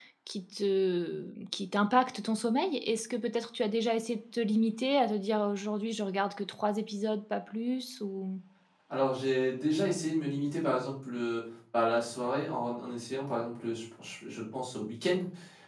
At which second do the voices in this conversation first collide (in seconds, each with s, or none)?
none